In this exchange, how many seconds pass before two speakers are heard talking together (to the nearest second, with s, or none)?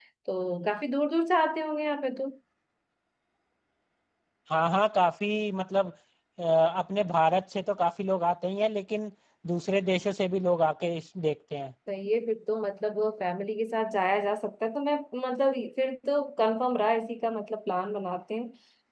none